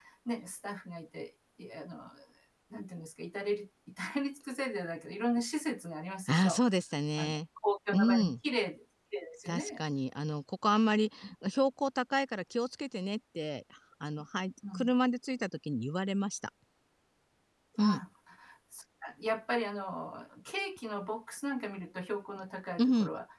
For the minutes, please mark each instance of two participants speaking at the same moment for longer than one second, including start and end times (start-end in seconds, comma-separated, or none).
none